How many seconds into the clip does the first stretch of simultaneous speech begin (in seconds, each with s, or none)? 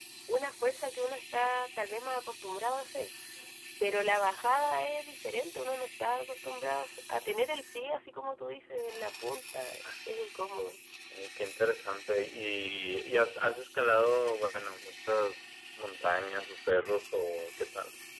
none